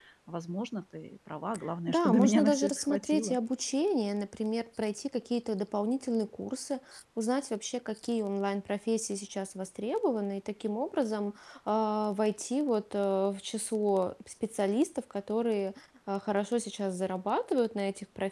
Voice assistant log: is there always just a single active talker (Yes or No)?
No